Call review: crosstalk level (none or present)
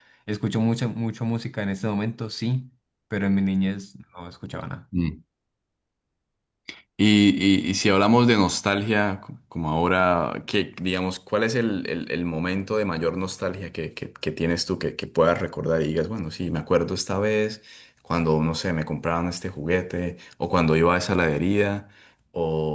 none